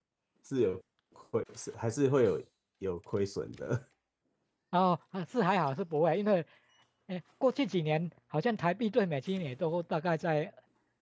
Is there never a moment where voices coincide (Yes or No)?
Yes